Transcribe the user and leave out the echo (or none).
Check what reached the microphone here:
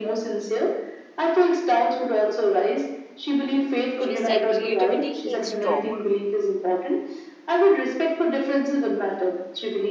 She said creativity heals trauma.